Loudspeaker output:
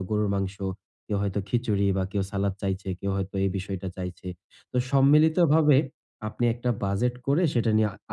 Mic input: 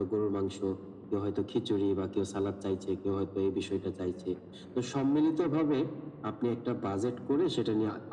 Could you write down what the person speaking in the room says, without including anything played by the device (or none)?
none